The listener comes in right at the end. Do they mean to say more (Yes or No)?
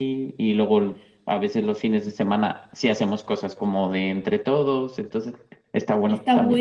Yes